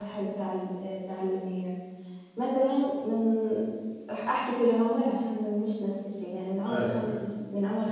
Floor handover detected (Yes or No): No